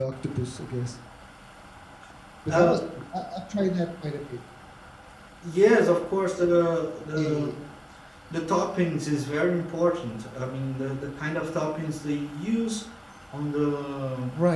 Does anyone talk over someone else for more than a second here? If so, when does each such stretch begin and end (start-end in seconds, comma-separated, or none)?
none